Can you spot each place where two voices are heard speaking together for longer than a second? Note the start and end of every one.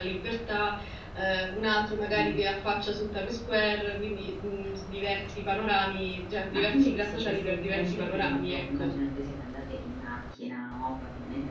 6.5-8.9

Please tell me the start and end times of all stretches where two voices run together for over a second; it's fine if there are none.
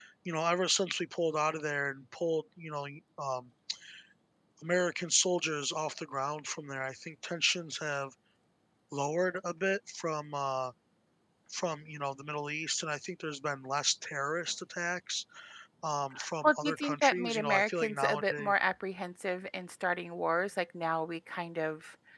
16.4-18.5

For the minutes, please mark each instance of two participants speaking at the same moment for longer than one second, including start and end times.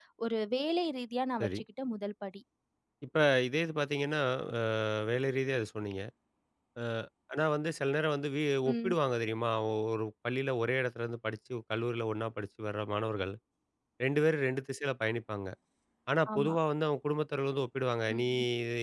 none

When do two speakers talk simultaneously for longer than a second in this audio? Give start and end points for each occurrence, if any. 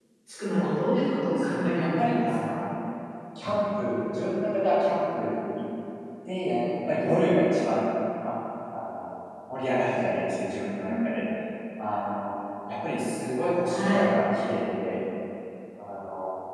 1.2-2.6

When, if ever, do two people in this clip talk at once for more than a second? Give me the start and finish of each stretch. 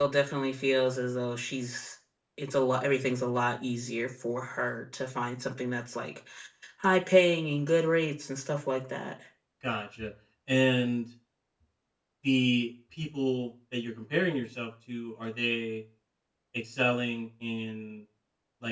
none

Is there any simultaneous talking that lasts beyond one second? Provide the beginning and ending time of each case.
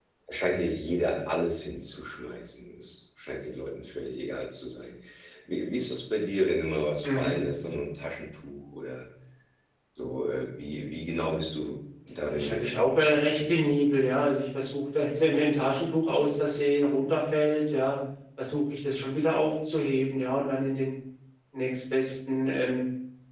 12.3-13.6

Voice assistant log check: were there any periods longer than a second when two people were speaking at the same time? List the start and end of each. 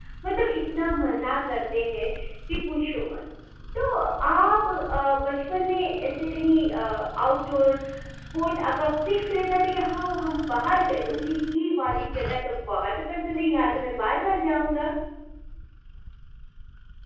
none

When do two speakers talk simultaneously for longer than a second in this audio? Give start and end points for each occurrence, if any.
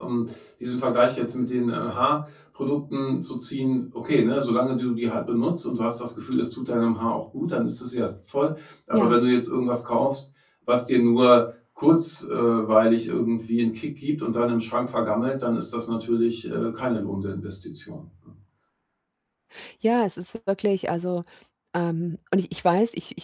none

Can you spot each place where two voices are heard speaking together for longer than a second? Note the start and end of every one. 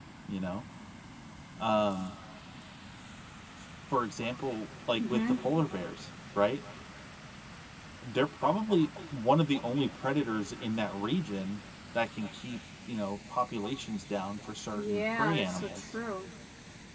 14.8-15.9

